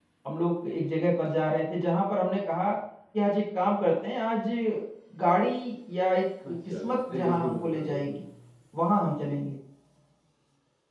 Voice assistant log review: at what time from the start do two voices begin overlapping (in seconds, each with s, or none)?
6.4 s